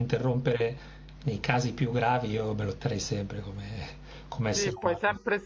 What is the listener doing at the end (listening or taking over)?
taking over